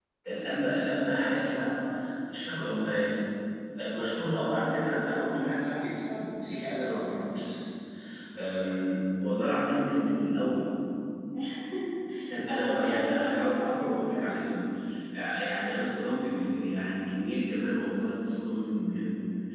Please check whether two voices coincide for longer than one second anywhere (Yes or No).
Yes